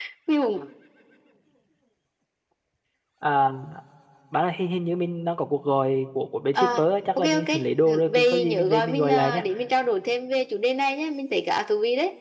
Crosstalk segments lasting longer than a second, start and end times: 8.1-9.4

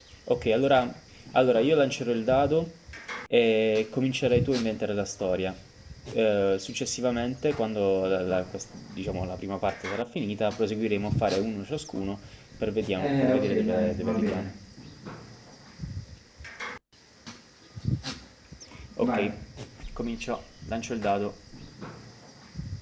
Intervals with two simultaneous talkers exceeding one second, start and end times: 12.9-14.4

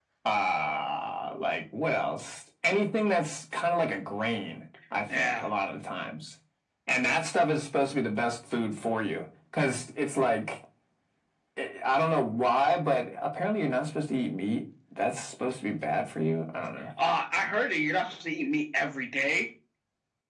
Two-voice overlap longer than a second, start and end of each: none

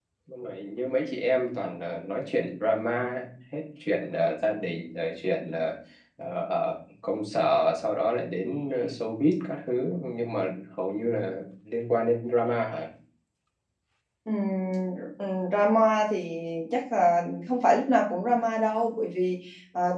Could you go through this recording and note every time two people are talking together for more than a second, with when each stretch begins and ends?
none

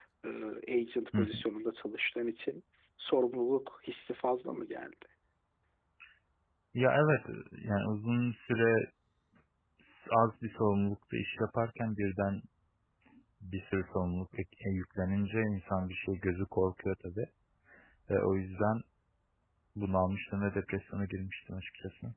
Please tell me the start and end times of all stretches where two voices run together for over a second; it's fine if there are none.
none

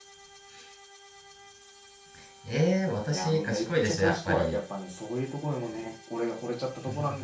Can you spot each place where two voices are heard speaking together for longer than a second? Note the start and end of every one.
3.1-4.6

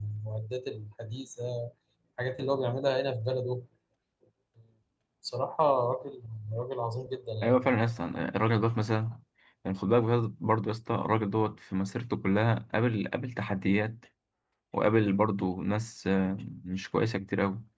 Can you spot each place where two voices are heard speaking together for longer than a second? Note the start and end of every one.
none

